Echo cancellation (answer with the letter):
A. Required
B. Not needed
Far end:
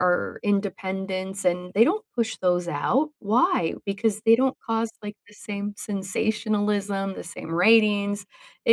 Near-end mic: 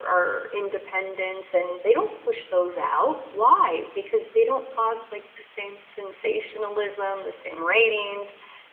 A